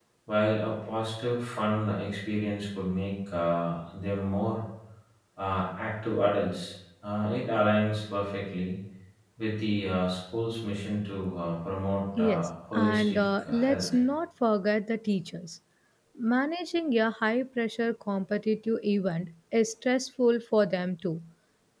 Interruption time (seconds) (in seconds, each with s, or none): 12.2 s